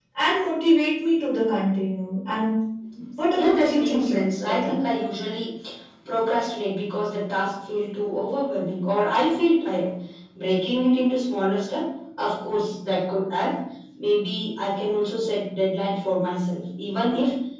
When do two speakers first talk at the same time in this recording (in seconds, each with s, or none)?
3.3 s